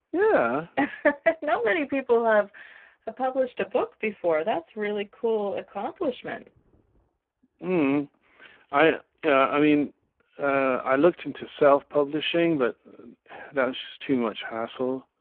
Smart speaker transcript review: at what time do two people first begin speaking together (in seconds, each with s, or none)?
none